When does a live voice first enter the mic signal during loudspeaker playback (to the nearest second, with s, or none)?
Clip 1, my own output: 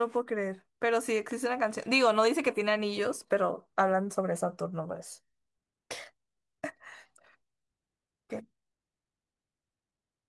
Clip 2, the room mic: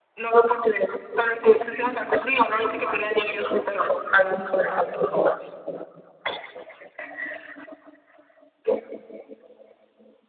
none